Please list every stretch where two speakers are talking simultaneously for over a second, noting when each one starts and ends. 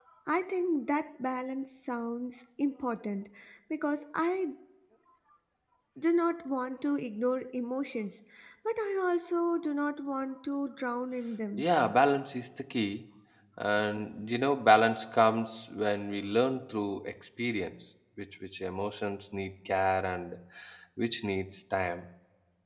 none

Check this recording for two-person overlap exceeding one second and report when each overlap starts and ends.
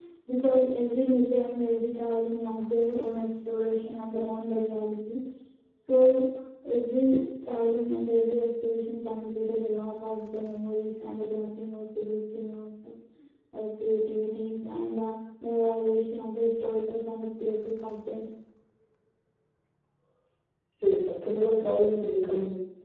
none

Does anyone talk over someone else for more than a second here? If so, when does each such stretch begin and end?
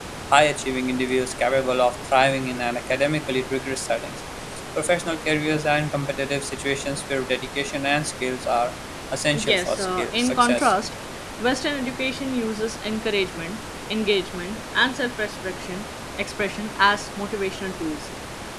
9.3-10.7

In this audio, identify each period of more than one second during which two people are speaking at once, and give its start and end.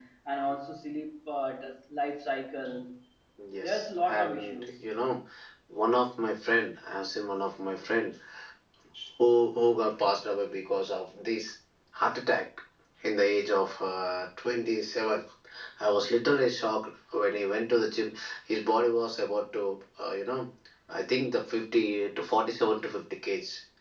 3.6-4.8

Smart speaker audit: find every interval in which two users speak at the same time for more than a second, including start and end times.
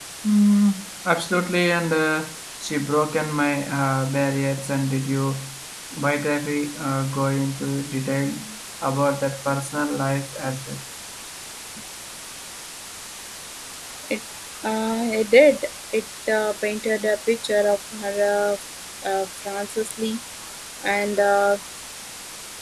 none

